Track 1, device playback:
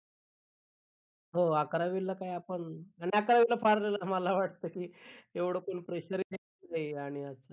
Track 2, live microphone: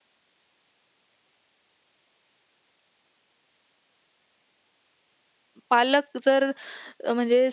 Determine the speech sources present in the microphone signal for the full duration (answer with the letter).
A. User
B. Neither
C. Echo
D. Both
A